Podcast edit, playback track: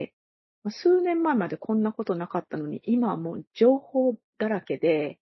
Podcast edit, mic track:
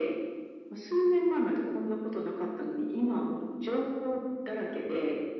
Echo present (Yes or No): Yes